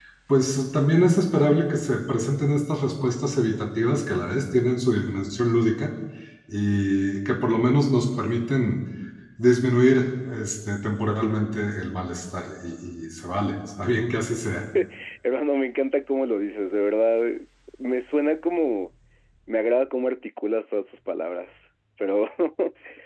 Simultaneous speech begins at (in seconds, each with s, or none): none